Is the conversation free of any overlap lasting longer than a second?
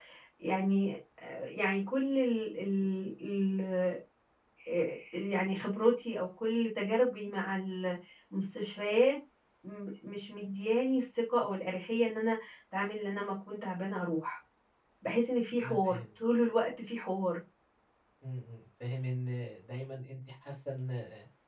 Yes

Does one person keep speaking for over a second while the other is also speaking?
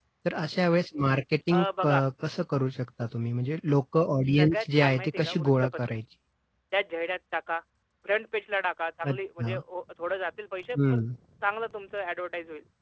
Yes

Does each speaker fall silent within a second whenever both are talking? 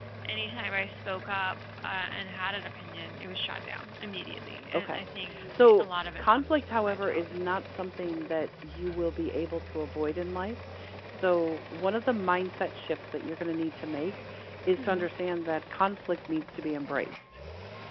No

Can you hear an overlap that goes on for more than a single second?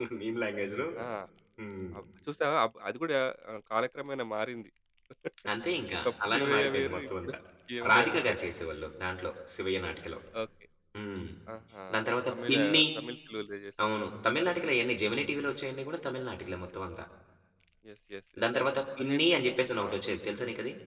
Yes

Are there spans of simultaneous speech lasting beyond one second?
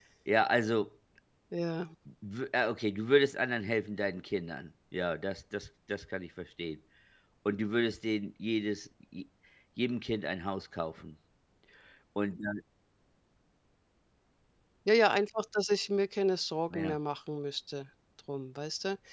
No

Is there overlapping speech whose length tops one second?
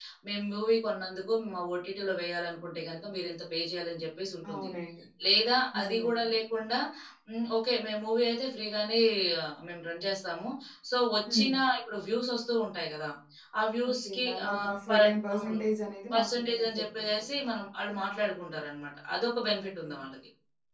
Yes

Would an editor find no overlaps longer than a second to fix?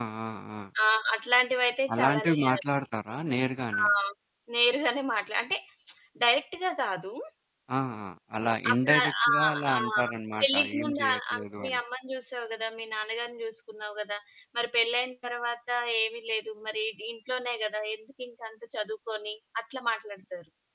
No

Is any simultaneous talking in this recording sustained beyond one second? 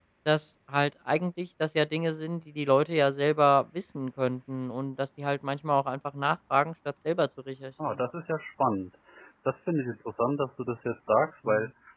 No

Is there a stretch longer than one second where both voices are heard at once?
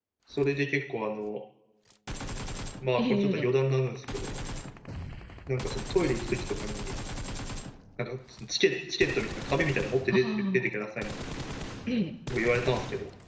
No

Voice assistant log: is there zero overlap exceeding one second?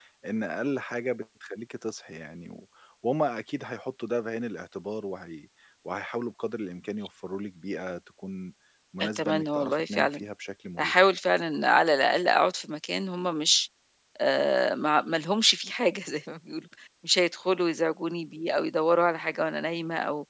No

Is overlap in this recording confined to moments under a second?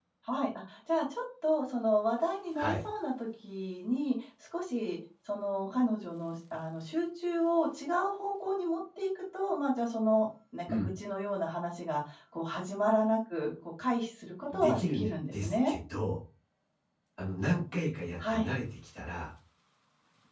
No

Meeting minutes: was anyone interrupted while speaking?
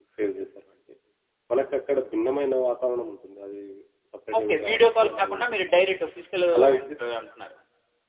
Yes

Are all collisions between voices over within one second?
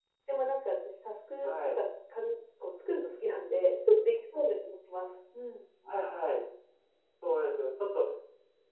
Yes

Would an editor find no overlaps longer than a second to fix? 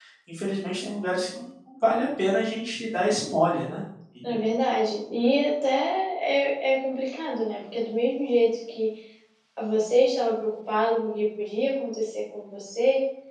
Yes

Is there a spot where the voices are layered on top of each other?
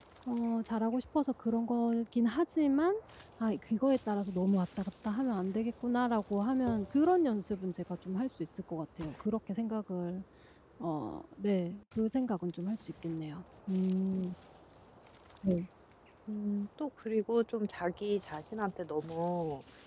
No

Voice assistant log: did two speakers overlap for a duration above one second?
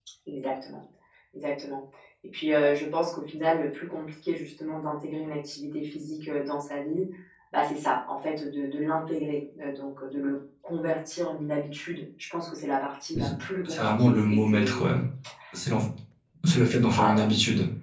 Yes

